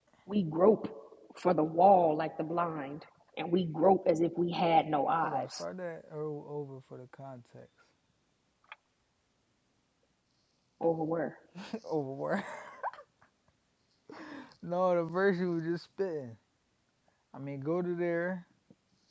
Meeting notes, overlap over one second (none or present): none